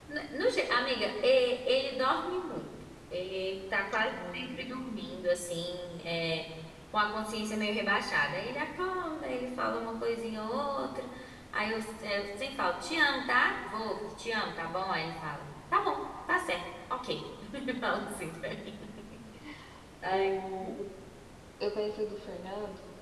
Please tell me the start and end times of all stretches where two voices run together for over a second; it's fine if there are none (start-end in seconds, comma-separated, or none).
4.0-5.2